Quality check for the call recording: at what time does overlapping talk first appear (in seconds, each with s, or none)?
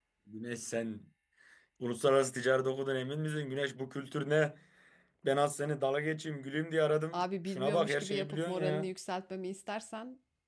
7.1 s